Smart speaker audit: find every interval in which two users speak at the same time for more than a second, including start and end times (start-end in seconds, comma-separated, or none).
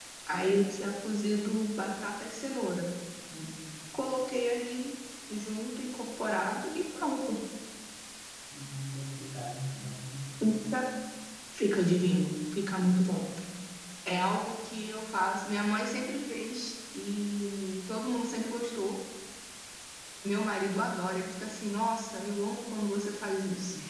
none